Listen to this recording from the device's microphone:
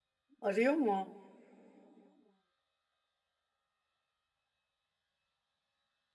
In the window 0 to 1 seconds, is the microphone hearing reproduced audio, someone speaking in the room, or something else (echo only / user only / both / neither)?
user only